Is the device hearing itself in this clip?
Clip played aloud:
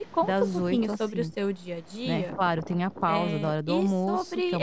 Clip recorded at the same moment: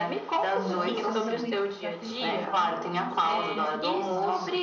Yes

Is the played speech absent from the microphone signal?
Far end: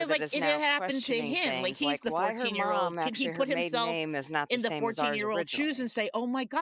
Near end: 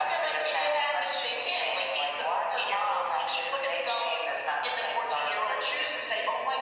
No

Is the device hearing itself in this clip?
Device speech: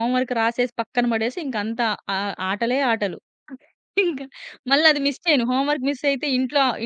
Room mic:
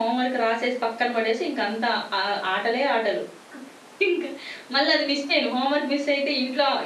Yes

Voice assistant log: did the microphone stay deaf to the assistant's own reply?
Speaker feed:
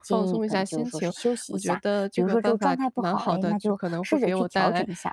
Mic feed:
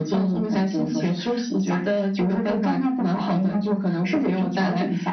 No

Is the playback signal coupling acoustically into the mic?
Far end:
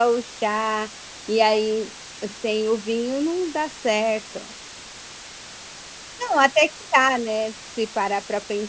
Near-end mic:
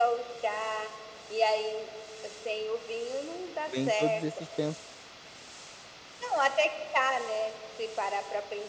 Yes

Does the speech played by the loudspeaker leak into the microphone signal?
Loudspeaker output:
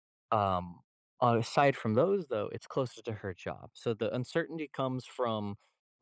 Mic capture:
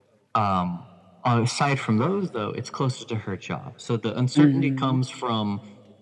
Yes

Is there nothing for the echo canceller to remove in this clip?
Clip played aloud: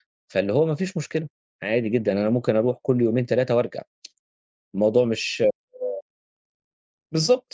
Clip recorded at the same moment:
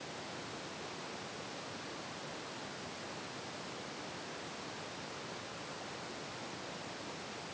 Yes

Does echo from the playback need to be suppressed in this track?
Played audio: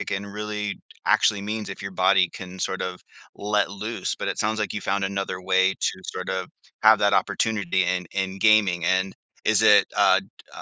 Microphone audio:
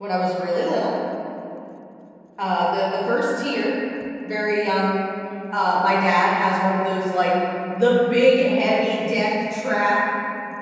No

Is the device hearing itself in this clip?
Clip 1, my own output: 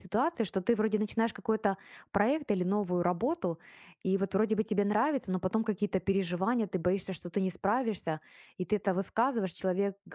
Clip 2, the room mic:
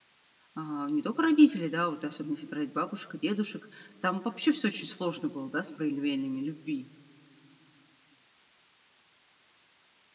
No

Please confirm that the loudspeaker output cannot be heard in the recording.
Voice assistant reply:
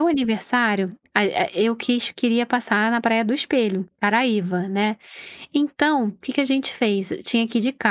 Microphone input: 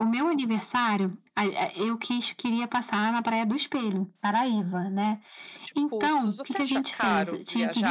No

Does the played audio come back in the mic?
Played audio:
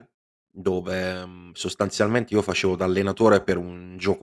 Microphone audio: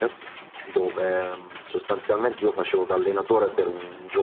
Yes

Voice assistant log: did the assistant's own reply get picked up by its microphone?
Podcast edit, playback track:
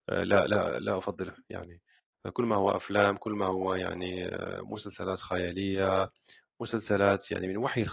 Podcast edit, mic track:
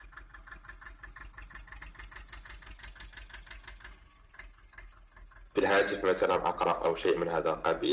No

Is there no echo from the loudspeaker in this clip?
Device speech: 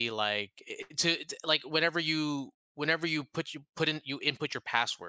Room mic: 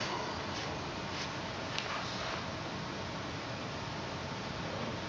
Yes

